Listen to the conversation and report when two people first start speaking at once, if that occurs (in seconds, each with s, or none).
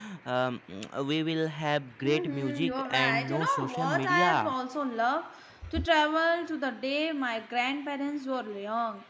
2.0 s